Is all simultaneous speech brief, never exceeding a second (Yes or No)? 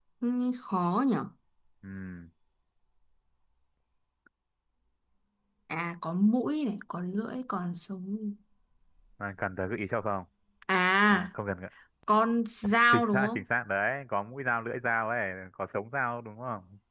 Yes